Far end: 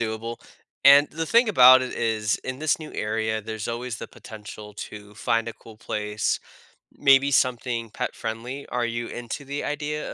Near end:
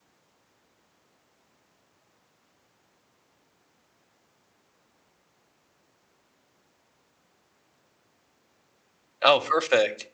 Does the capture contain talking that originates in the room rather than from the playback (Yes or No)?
Yes